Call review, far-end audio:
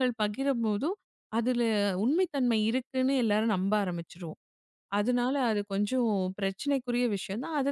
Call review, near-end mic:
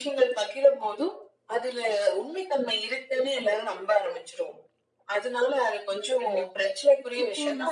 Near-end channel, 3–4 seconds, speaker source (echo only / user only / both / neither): echo only